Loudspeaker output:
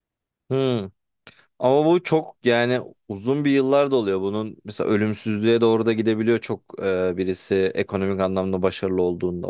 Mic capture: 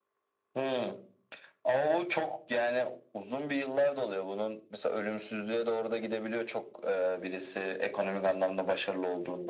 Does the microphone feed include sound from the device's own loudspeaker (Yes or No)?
Yes